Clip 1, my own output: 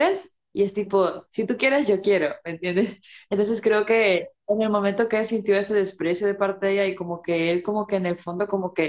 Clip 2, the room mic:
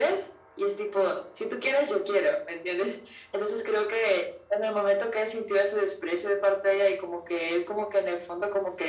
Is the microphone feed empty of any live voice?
Yes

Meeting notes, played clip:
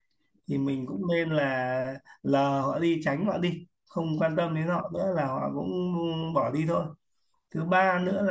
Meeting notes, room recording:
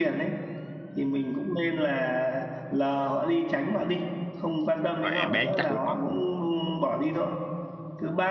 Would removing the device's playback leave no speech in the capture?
No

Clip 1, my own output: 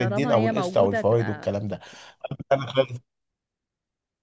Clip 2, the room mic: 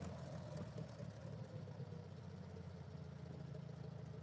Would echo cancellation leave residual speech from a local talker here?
No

